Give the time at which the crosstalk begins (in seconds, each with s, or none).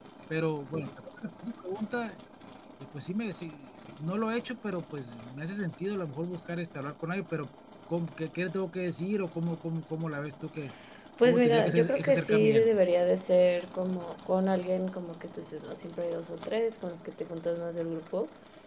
11.2 s